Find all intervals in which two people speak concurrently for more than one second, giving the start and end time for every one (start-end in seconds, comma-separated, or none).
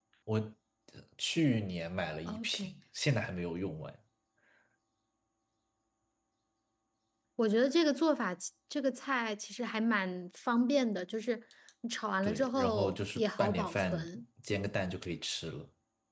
12.2-14.0